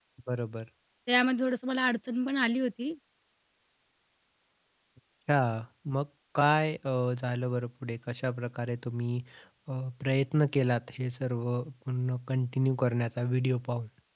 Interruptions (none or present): none